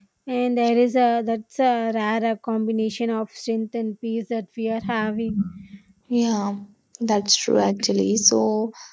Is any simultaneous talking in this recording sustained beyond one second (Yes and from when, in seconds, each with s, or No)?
No